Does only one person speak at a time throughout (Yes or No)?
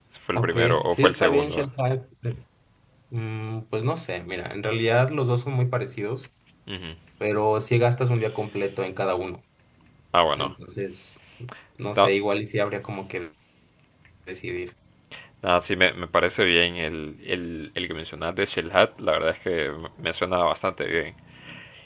No